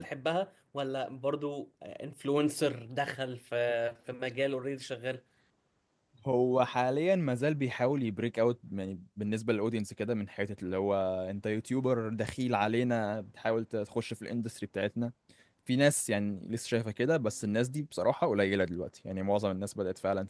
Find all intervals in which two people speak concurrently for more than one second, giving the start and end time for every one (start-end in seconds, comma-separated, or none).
none